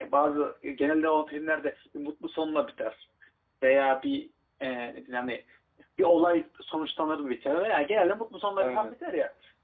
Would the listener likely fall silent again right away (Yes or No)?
Yes